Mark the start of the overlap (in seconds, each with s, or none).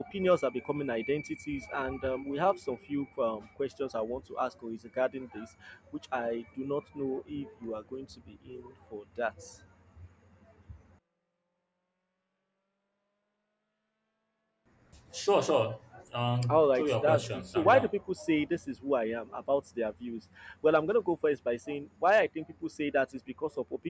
16.4 s